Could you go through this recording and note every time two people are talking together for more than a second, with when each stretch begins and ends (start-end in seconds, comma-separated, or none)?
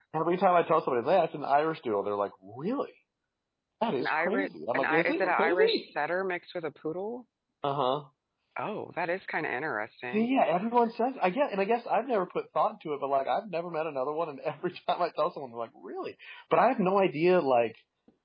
4.0-5.8